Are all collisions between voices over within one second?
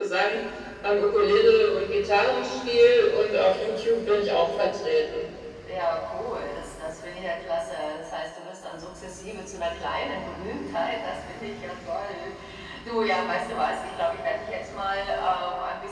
Yes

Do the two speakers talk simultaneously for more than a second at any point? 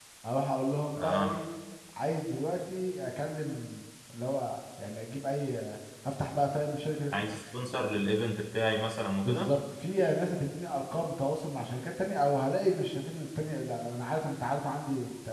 No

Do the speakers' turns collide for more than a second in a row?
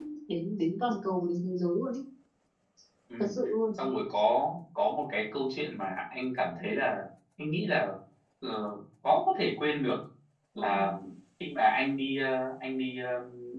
No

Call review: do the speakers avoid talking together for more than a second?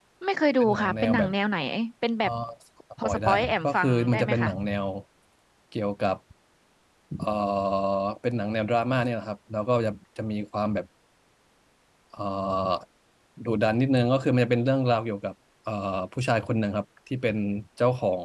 No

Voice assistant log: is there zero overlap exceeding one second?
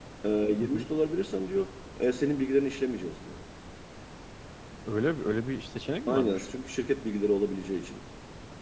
Yes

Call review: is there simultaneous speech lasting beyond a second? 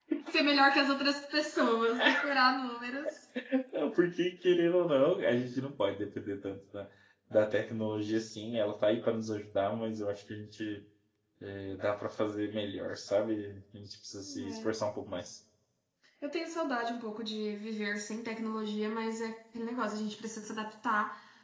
No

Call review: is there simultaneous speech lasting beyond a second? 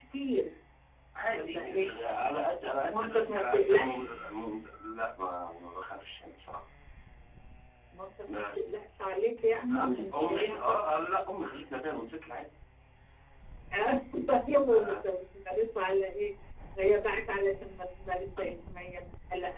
Yes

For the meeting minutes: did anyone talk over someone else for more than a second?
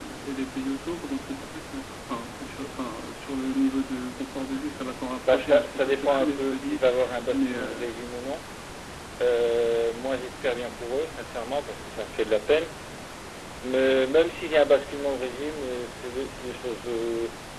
Yes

